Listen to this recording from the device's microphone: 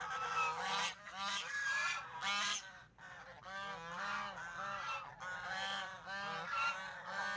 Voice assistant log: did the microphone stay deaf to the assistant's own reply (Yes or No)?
Yes